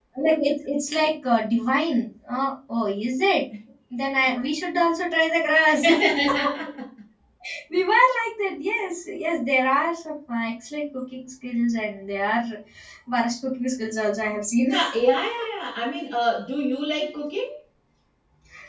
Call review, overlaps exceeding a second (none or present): none